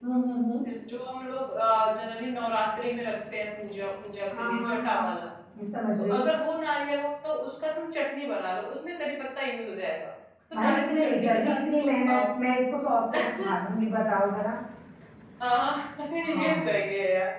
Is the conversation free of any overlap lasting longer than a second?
No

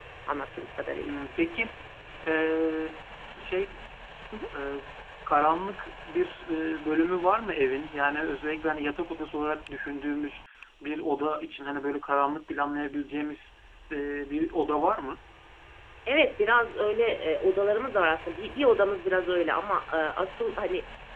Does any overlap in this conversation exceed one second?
No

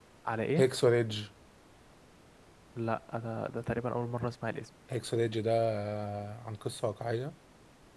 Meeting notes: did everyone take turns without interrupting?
Yes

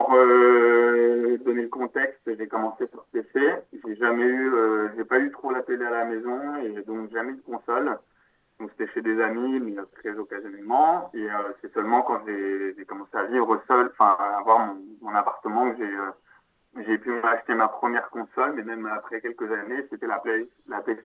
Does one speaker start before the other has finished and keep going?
No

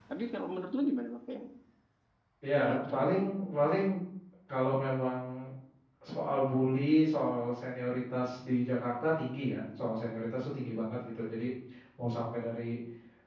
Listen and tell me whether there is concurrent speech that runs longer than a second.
No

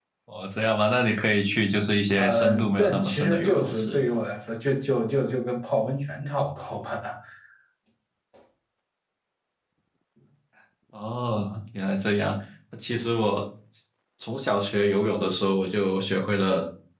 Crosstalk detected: Yes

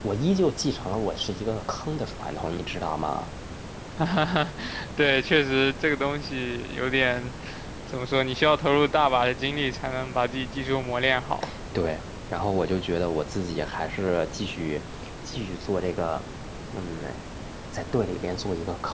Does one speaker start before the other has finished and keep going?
No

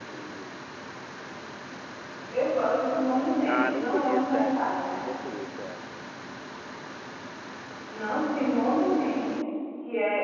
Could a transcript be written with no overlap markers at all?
No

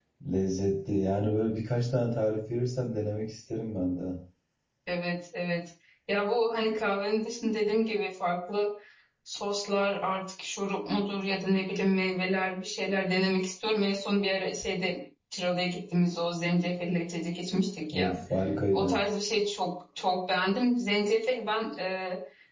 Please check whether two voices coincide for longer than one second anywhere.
No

